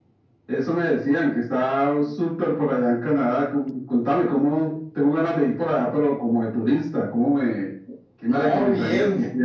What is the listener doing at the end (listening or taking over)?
taking over